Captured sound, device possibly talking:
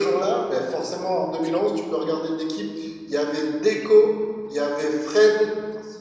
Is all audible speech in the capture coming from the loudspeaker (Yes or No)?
Yes